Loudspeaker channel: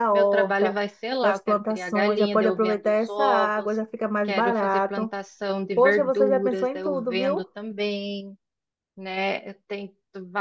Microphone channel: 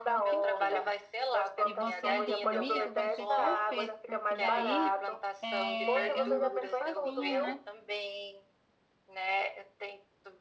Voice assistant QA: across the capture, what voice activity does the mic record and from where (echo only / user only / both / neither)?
both